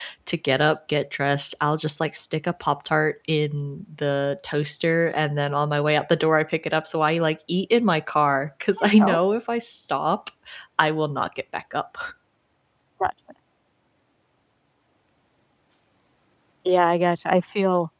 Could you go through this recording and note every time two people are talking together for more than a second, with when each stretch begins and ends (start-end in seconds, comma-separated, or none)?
none